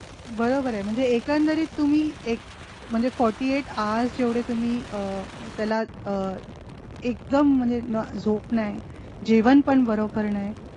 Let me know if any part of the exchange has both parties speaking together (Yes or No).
No